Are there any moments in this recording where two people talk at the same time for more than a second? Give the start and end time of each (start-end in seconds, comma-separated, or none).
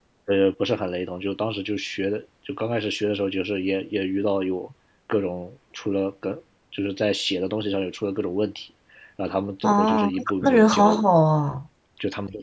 9.6-11.1